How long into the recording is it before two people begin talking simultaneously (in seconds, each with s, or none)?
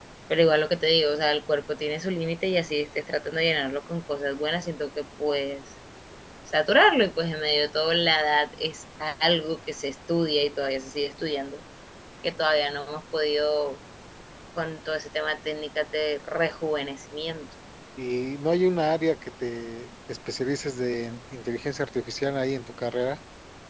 none